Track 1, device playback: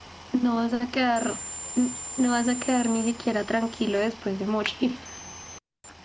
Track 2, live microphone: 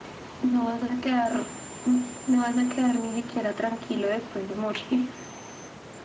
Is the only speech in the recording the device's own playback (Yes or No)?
Yes